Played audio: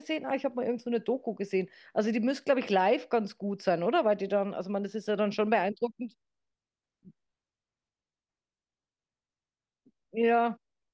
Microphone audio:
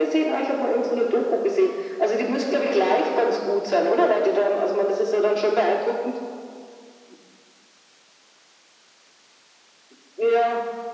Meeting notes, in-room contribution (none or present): none